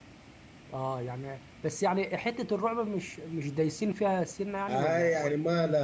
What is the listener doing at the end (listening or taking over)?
taking over